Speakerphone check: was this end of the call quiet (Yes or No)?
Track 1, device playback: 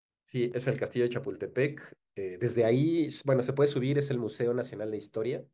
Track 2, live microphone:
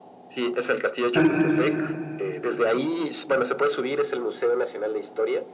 No